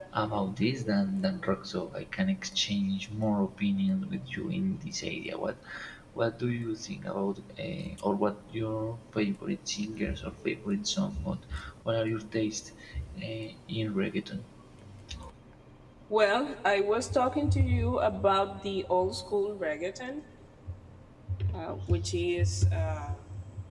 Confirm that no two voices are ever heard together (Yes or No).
Yes